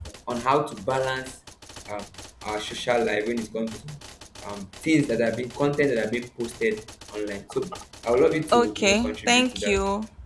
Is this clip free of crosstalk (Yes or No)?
No